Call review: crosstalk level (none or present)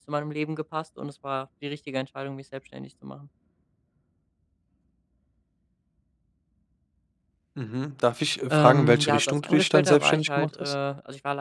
present